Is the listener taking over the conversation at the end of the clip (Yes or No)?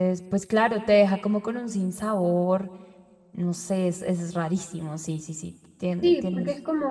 Yes